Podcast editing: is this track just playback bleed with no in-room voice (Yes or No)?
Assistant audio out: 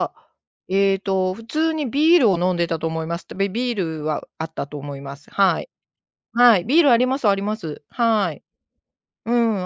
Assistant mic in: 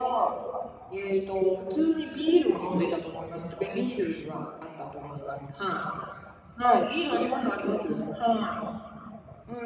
Yes